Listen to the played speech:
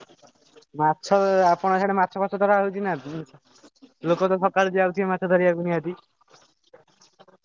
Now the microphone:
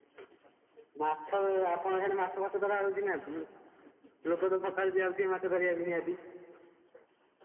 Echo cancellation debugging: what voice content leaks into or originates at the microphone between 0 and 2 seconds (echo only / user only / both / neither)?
echo only